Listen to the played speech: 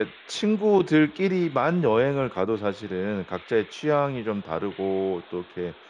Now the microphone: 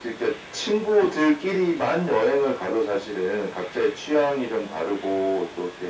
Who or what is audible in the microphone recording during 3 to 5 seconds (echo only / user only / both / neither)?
echo only